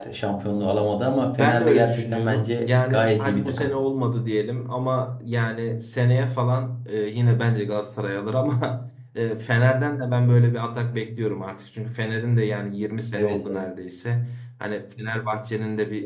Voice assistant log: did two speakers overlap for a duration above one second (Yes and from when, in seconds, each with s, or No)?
Yes, from 1.4 s